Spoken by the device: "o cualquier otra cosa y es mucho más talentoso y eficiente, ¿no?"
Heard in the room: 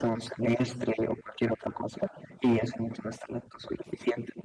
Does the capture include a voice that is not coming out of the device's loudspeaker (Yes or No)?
No